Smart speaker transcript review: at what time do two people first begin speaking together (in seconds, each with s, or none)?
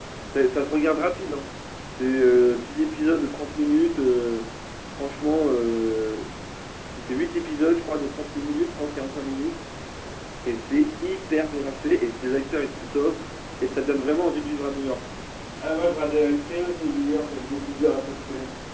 none